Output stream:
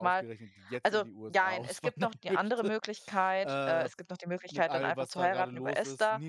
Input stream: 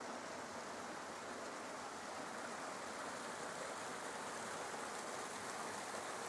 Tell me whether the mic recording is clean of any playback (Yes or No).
Yes